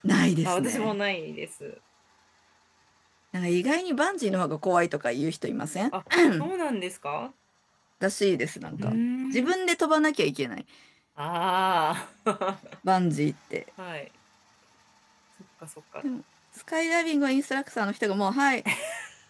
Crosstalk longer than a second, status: none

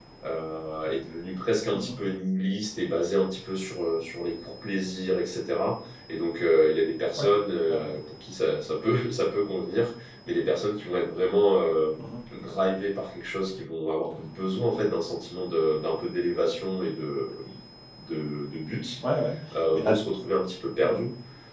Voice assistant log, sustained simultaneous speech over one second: none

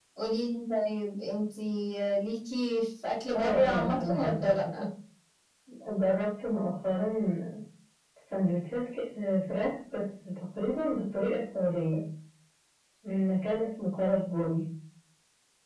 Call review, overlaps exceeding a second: present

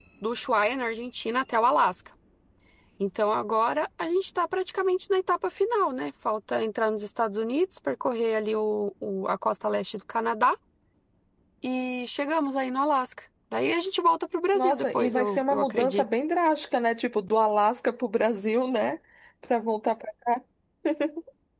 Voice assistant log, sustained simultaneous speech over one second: present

